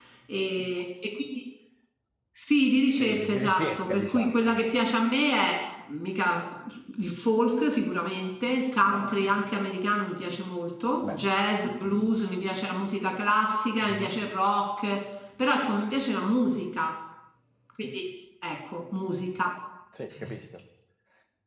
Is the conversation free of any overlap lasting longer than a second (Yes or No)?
No